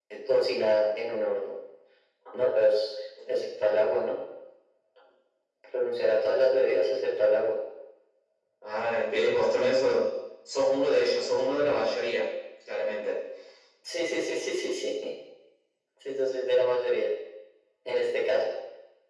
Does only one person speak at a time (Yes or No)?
Yes